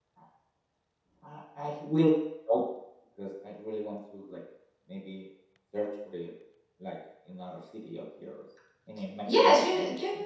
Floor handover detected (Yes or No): Yes